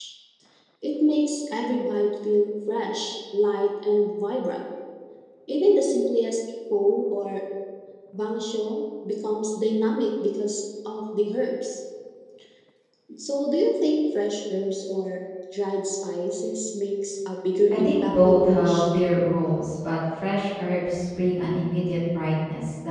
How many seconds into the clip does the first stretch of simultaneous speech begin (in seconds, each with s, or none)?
17.7 s